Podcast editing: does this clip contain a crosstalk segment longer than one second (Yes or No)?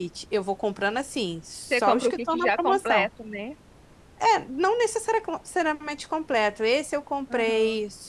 Yes